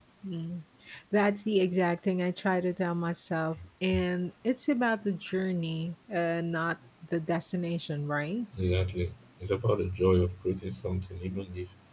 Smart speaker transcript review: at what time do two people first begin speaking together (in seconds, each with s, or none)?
none